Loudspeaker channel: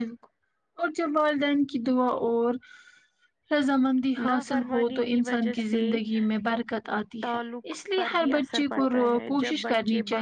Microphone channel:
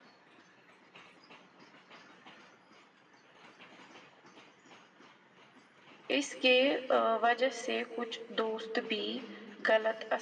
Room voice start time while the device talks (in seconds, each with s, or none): 6.2 s